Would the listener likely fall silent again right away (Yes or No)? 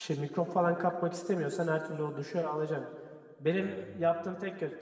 Yes